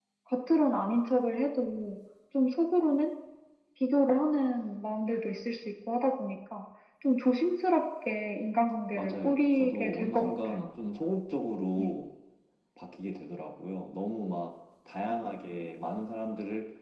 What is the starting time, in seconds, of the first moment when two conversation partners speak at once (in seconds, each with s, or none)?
8.9 s